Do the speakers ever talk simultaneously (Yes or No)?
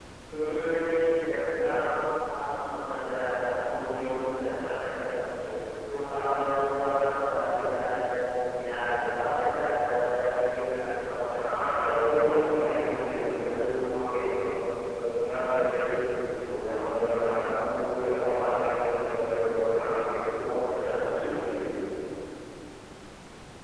Yes